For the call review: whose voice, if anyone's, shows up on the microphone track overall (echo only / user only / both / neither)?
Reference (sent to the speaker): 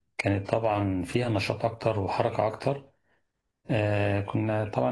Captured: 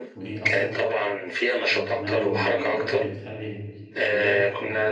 both